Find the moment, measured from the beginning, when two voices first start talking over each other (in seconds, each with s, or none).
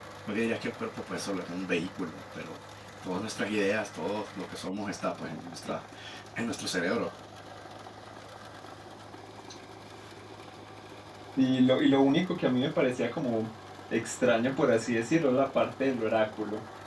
none